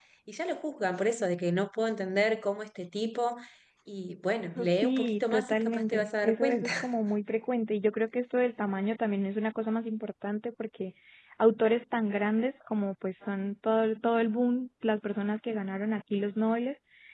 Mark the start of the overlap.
4.6 s

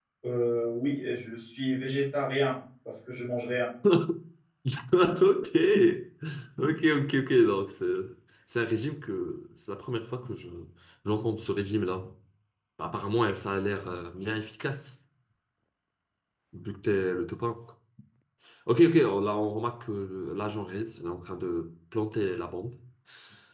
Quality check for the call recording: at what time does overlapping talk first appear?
none

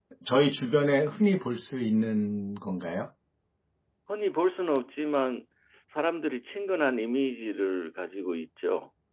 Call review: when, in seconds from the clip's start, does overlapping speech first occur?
none

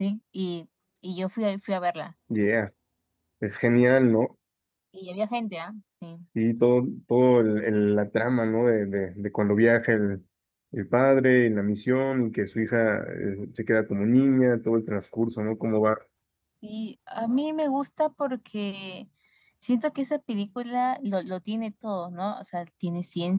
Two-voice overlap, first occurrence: none

